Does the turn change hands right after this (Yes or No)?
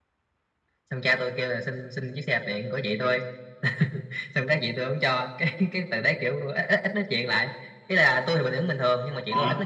No